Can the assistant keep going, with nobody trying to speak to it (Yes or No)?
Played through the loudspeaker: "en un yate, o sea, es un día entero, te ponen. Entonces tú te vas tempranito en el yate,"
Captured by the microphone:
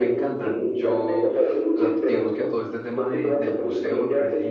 No